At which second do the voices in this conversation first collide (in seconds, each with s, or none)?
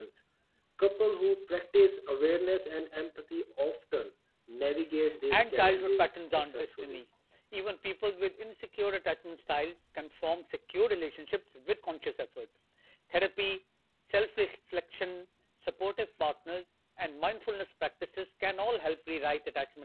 5.3 s